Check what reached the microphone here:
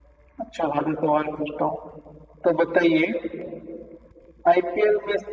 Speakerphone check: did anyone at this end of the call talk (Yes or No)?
No